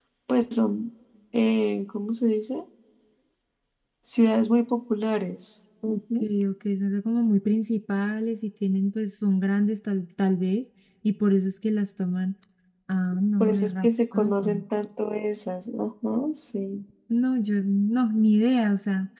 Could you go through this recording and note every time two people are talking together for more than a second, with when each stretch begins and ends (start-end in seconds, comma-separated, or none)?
13.4-14.6